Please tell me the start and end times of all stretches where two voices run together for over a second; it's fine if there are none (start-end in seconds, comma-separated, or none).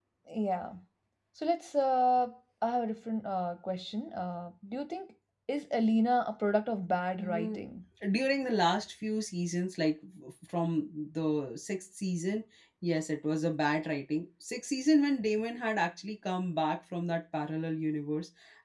none